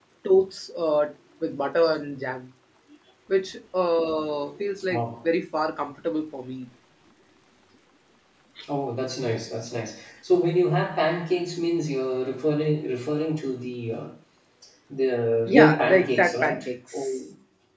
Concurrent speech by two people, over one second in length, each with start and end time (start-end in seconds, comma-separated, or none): 15.5-17.2